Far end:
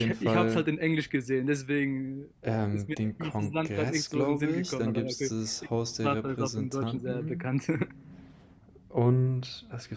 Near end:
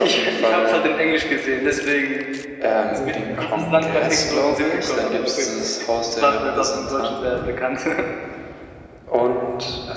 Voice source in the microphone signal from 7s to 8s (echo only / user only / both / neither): echo only